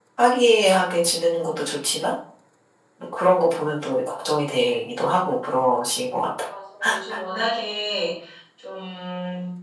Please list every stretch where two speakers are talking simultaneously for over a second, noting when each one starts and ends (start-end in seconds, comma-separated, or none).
none